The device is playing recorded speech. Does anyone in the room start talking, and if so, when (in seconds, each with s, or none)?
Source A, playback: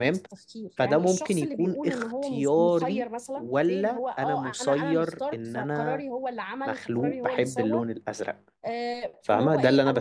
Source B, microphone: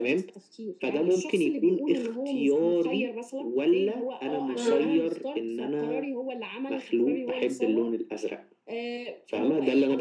4.5 s